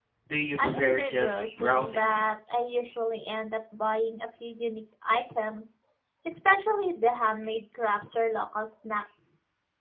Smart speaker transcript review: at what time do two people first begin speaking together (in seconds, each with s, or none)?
0.6 s